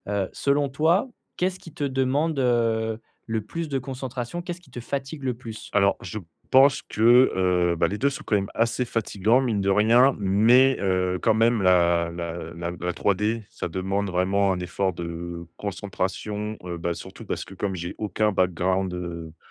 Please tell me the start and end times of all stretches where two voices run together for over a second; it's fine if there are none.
none

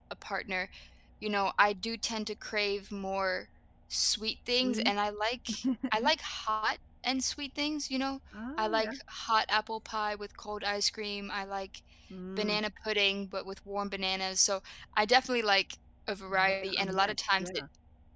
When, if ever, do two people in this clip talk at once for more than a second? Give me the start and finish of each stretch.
16.3-17.6

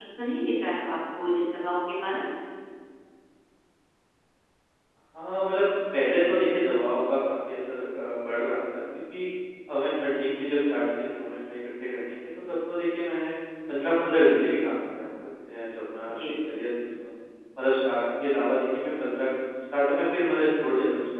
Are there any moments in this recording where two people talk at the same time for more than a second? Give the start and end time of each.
none

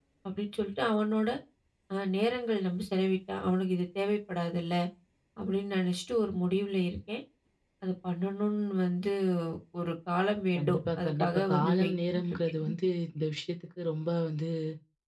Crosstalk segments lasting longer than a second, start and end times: 10.6-12.7

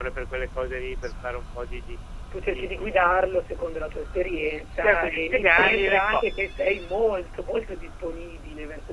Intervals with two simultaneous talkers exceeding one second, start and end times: 4.8-6.2

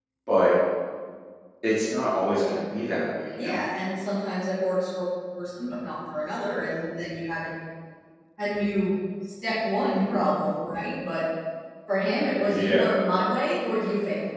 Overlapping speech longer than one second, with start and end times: none

